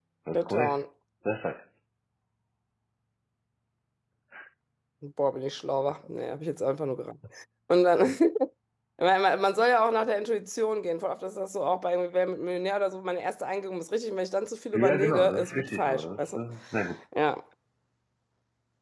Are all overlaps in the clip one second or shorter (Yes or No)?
No